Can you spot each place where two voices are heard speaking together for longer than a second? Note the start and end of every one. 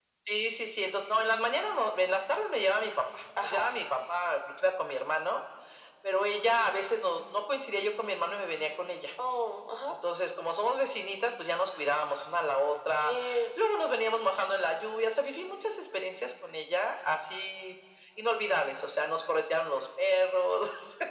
none

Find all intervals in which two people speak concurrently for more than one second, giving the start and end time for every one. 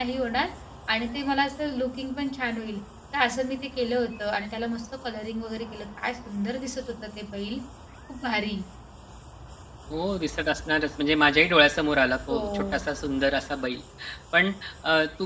none

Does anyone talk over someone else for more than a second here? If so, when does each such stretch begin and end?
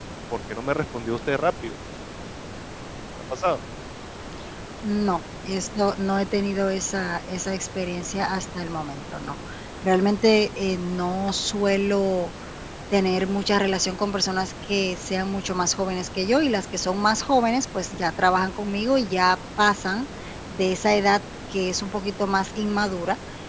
none

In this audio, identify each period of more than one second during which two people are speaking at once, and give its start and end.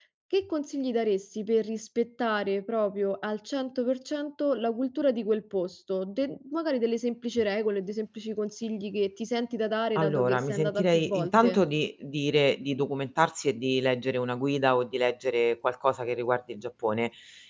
9.9-11.6

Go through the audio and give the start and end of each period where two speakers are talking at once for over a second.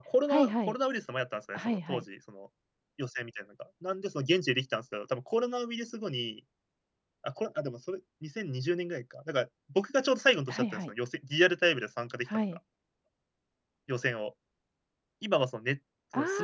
none

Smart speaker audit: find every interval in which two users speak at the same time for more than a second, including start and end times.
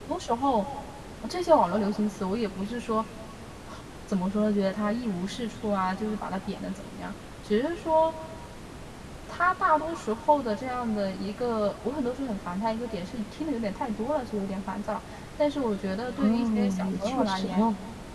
16.2-17.6

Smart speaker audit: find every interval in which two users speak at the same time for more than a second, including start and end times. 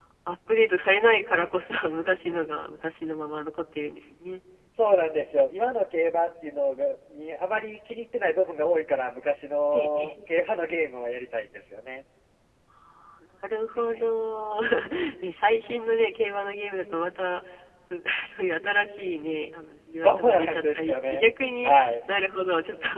20.0-21.2

